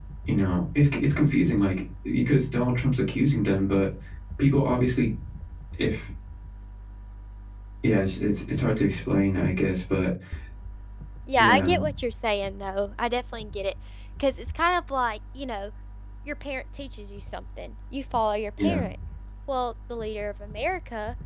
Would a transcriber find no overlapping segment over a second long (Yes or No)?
Yes